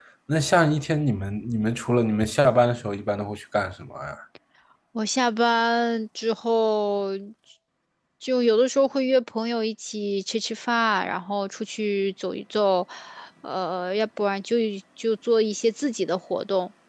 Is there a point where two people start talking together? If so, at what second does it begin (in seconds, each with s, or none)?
none